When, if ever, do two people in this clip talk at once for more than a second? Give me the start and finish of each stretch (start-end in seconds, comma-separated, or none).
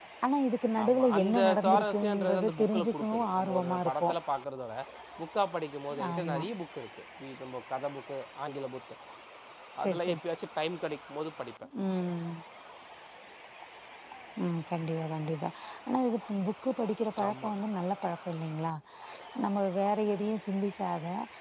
0.8-4.1